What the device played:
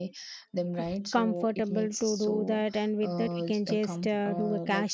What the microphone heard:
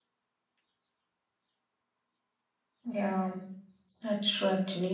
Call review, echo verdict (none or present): none